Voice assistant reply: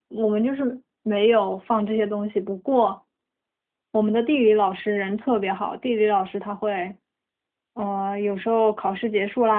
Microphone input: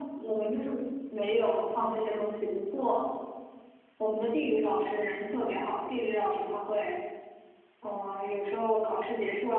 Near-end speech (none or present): none